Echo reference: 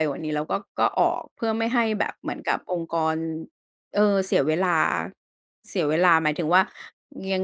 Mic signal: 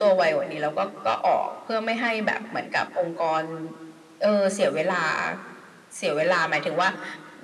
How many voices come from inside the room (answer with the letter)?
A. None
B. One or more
A